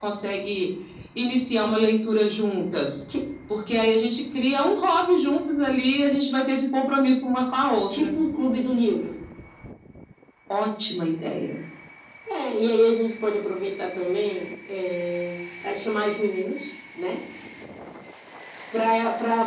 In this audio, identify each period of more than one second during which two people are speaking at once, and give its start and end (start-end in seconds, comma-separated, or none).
none